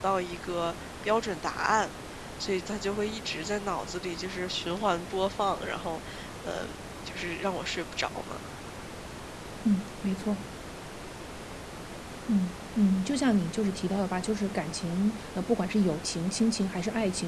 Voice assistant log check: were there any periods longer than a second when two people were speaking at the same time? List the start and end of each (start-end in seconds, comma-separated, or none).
none